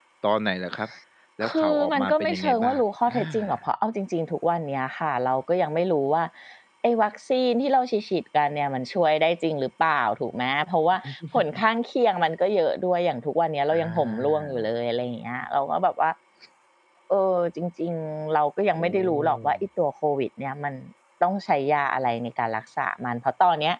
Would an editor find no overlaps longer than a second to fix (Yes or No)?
No